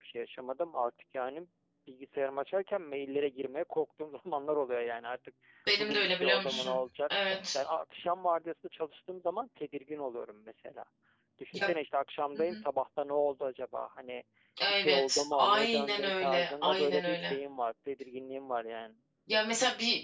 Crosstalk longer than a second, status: present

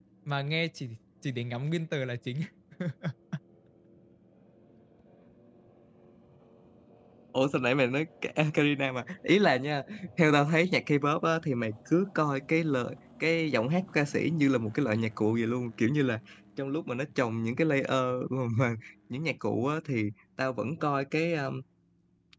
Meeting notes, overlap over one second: none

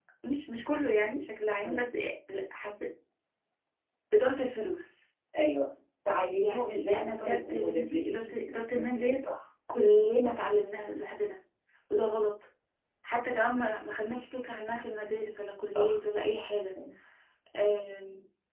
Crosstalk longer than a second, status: present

